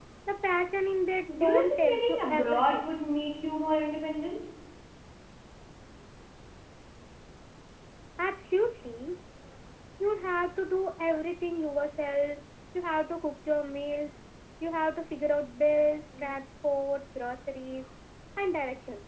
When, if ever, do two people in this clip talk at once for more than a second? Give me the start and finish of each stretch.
1.3-2.9

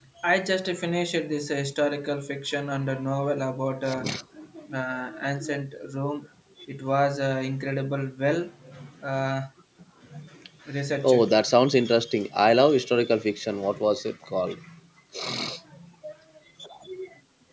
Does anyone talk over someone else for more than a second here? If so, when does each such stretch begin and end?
none

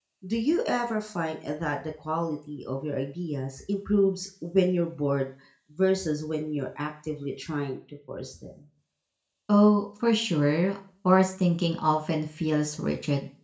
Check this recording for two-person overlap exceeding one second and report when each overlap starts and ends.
none

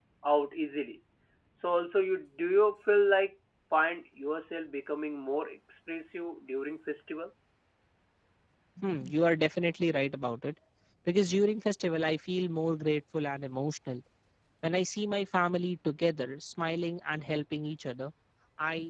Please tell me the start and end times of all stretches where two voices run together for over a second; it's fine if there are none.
none

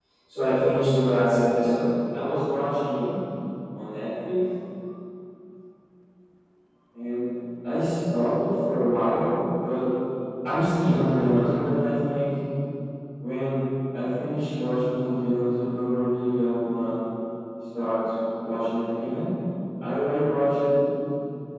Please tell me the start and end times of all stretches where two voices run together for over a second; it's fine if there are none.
none

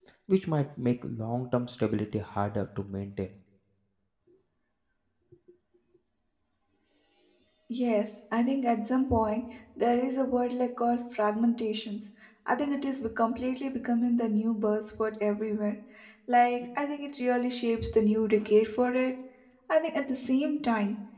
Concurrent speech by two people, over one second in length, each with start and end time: none

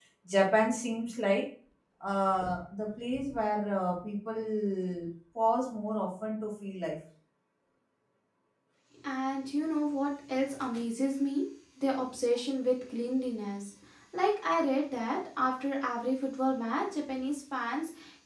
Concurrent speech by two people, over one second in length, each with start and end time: none

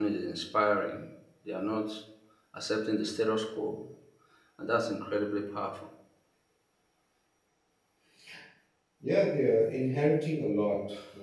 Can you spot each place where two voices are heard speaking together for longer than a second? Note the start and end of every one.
none

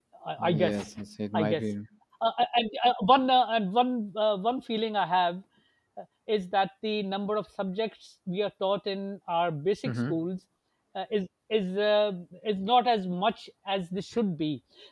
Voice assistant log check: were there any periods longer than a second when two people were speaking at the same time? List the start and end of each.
none

